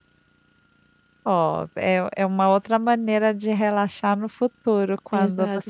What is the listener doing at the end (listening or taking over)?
taking over